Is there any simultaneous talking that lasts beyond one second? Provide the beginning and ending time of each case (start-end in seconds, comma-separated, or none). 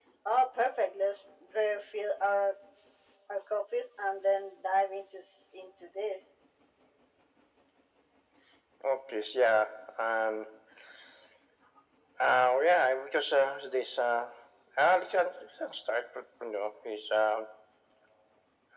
none